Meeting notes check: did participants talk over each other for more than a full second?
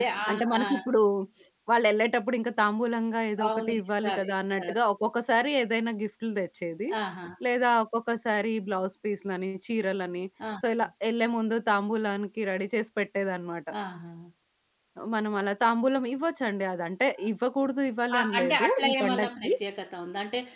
Yes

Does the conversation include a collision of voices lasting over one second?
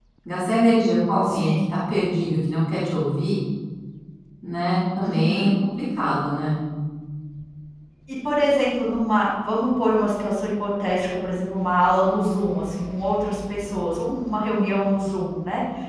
No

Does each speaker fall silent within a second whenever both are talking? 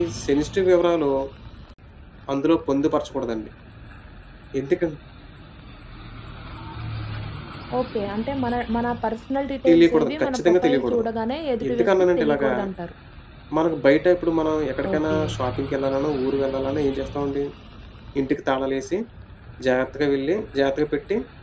No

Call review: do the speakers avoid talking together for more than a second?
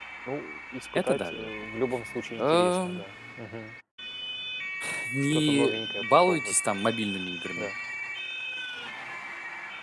No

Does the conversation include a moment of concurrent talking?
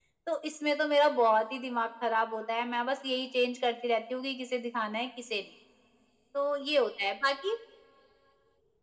No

